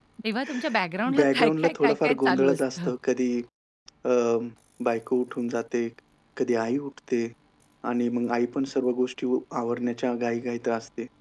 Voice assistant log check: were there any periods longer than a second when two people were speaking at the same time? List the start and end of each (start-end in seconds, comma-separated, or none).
1.2-2.9